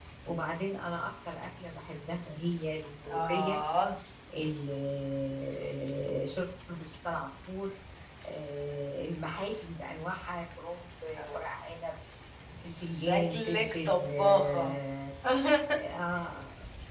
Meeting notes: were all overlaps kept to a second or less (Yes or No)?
No